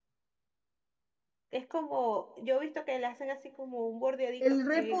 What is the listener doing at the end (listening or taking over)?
taking over